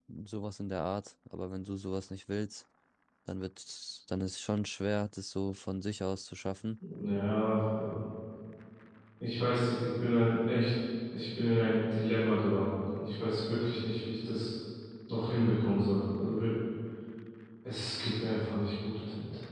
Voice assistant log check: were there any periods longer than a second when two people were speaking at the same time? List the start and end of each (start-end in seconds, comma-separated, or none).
none